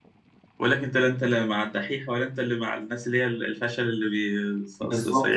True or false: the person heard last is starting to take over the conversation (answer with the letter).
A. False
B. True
B